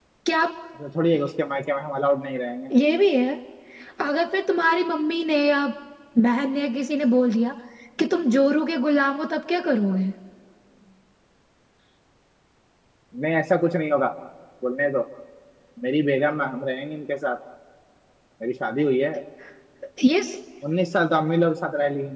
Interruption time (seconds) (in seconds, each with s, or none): none